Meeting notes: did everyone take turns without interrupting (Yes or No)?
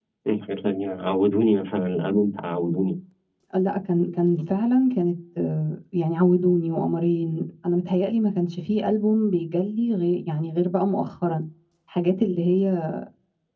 Yes